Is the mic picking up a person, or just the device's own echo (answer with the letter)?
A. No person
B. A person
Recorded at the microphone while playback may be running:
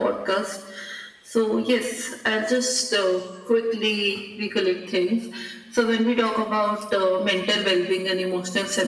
A